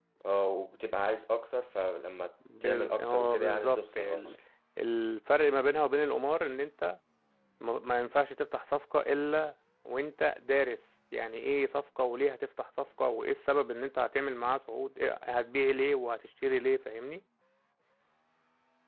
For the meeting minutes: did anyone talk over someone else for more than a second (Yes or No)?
Yes